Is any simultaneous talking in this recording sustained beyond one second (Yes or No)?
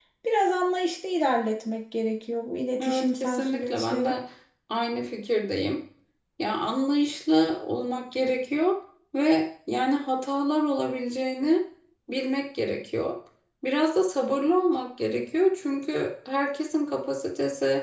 Yes